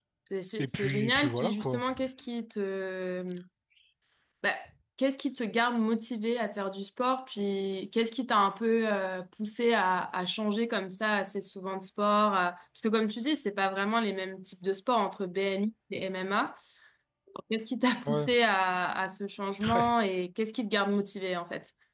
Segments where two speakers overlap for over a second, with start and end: 0.6-1.8

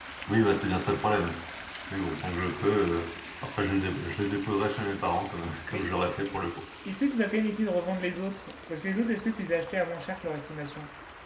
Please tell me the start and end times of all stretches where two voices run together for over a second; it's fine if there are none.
none

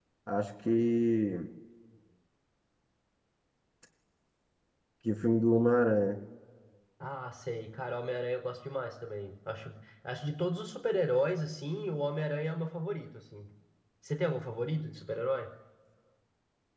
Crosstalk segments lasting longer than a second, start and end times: none

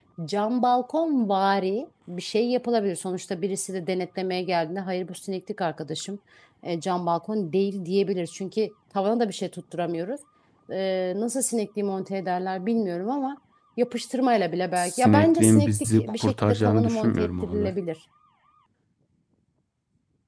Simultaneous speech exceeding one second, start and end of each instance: 14.8-17.7

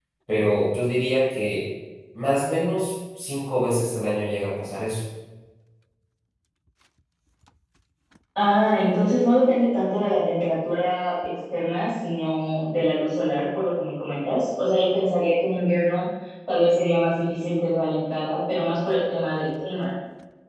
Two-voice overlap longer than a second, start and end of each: none

